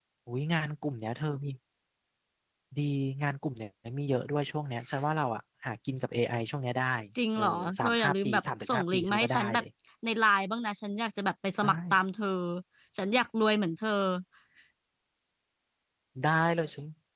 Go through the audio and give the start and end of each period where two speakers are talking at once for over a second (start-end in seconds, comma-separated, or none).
7.4-9.6